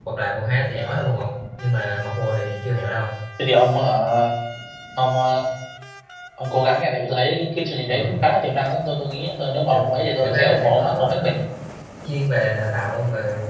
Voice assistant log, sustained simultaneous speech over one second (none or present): present